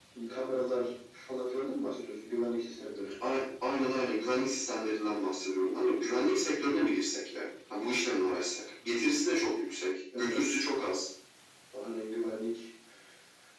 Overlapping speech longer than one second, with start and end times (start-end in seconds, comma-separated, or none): none